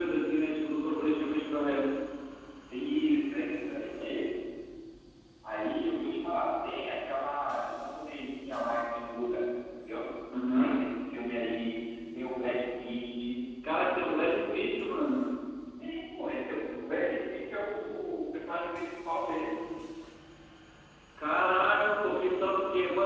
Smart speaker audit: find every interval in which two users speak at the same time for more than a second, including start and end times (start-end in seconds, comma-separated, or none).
none